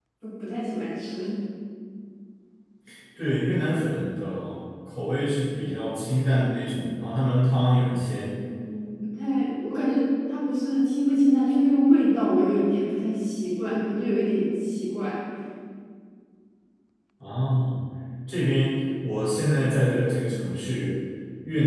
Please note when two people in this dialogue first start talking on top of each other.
none

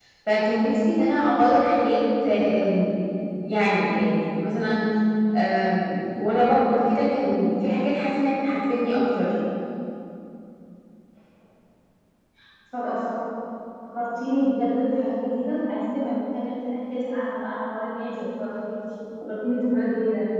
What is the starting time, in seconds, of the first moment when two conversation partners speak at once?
none

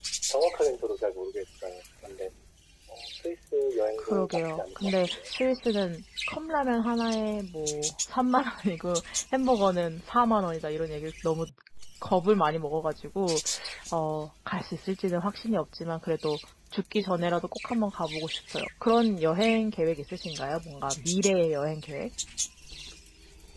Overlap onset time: 4 s

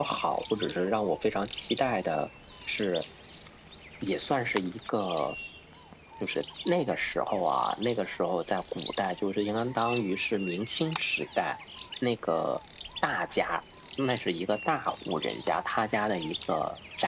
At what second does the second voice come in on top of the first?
none

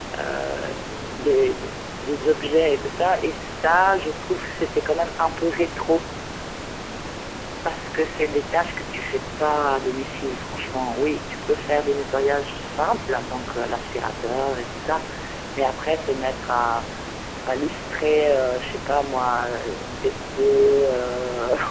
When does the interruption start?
none

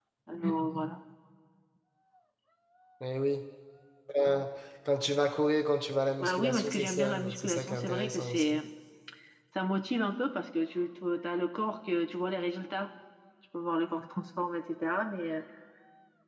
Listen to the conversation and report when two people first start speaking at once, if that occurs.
6 s

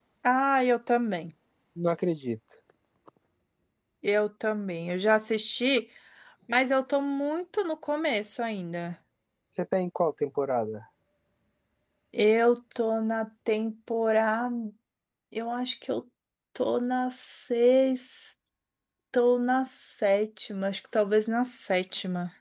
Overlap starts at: none

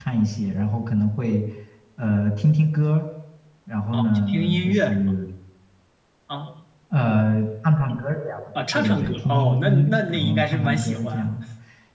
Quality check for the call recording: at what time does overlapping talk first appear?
4 s

